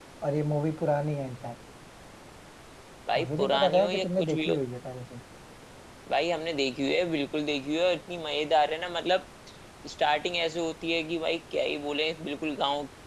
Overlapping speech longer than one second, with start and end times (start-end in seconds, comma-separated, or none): 3.2-4.6